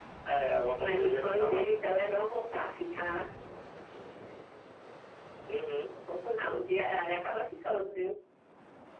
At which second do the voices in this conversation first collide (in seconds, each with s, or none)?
0.8 s